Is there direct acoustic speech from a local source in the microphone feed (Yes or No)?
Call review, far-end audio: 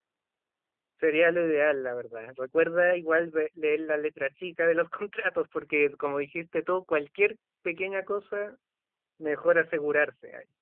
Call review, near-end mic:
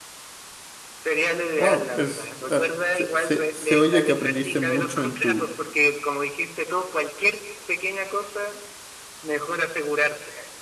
Yes